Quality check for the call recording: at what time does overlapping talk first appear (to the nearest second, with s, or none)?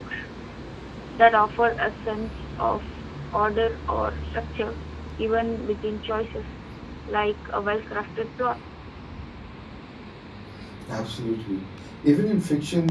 none